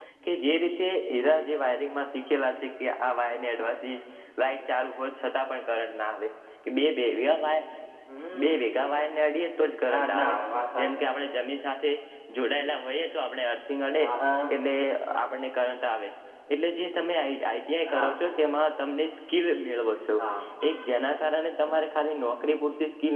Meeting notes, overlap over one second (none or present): none